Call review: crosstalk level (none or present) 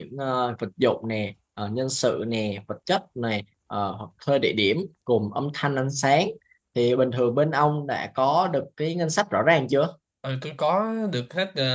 none